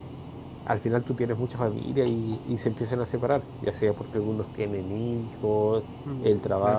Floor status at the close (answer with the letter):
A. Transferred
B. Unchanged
B